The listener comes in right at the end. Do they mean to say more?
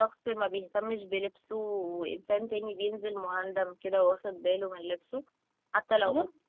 No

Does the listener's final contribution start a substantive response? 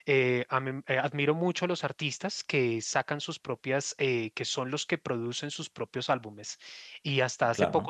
No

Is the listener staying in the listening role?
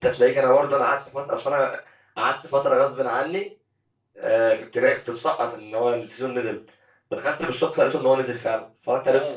No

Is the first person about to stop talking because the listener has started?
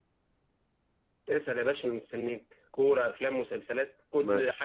Yes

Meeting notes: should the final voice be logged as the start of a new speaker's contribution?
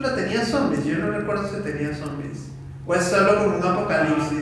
Yes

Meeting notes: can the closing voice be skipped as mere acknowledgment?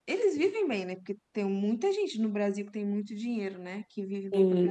No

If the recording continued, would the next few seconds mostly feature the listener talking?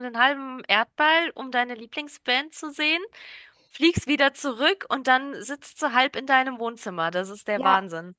Yes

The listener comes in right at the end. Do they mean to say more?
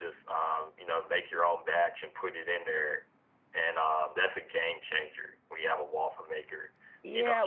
Yes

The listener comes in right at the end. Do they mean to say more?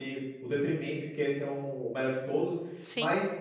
No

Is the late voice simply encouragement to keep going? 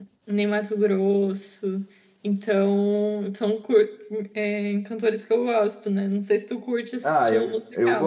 No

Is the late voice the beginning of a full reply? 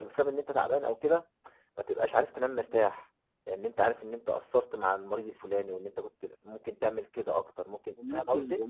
Yes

